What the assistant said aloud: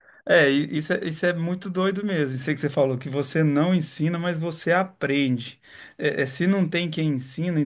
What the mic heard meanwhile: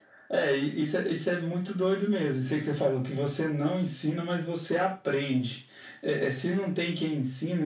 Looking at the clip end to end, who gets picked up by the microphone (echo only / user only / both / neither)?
echo only